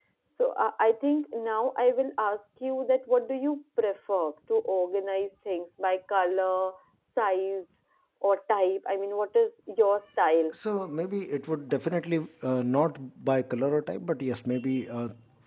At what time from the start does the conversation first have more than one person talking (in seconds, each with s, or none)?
none